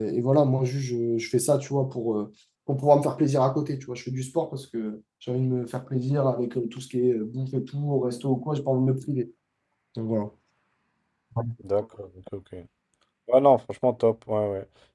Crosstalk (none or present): none